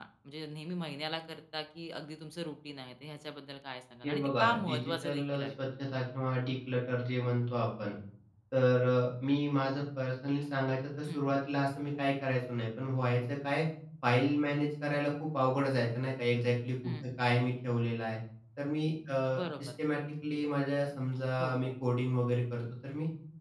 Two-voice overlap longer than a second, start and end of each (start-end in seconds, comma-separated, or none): 4.0-5.5